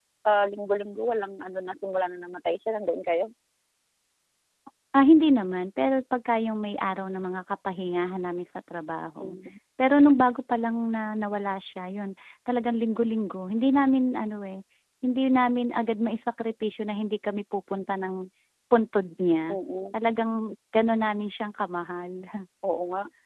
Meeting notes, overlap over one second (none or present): none